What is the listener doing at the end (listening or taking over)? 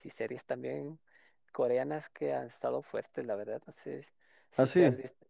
listening